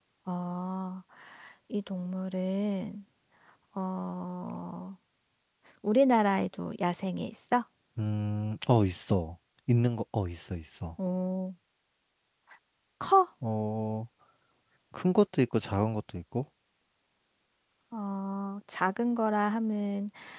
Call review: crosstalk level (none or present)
none